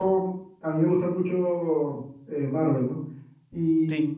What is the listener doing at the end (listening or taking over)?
listening